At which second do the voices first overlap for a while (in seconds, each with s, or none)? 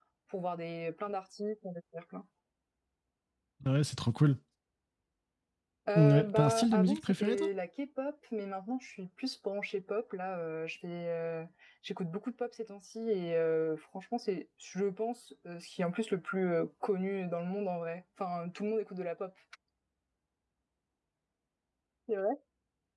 6.0 s